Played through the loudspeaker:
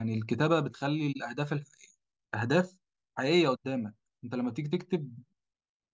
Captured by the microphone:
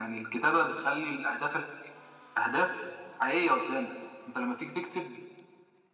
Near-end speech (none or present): none